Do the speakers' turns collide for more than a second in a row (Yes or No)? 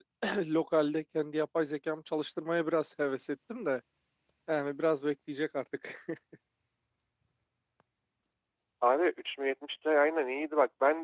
No